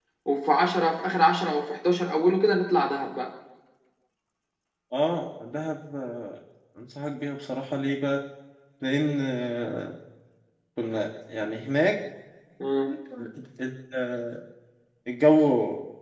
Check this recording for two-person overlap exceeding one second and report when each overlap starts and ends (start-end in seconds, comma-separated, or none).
none